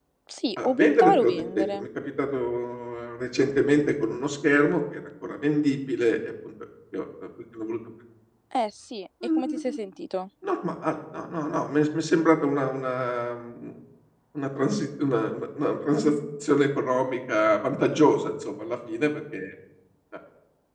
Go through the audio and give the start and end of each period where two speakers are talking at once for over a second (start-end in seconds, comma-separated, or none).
0.6-1.9